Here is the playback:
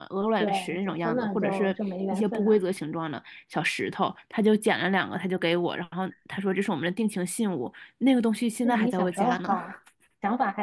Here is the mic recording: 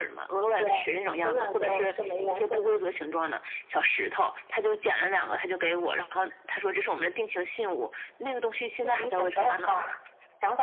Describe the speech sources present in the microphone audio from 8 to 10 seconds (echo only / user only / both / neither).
echo only